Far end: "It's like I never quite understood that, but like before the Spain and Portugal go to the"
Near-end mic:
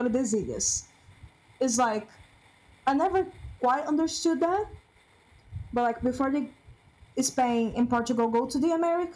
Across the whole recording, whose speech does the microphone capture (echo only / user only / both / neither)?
echo only